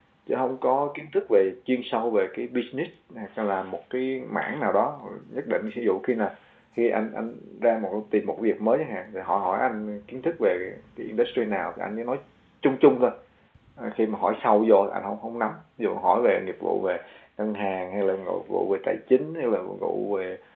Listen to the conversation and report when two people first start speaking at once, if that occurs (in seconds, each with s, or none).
none